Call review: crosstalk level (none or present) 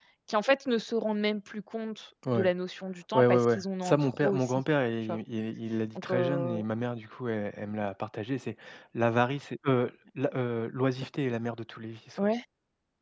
present